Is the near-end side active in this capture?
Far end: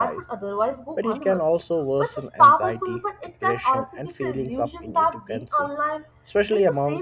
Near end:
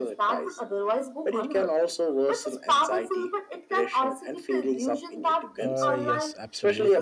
Yes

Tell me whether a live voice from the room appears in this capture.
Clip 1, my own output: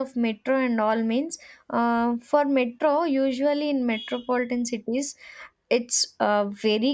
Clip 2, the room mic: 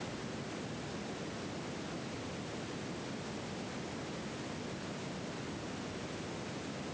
No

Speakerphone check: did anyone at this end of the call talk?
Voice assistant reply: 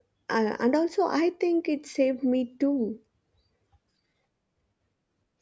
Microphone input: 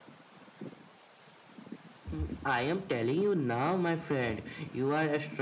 Yes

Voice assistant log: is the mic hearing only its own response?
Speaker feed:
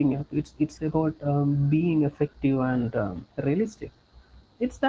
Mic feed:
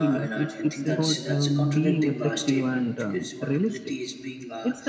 No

